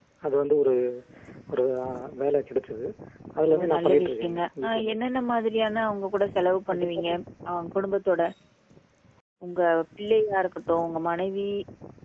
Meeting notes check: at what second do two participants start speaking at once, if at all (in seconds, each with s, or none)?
3.5 s